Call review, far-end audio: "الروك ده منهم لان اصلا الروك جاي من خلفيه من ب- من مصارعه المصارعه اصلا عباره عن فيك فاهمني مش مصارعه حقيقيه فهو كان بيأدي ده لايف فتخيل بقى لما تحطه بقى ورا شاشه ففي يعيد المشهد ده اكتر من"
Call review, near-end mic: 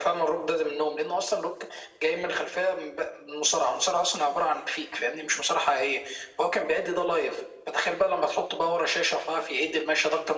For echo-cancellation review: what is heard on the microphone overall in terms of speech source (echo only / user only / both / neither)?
echo only